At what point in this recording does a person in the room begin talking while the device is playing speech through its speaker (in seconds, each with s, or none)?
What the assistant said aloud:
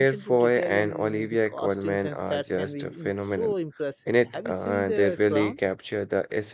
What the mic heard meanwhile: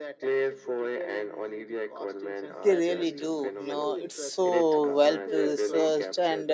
2.6 s